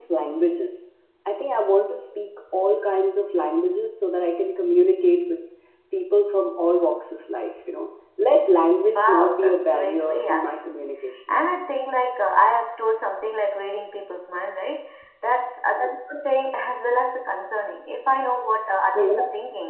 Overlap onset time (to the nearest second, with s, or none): 9 s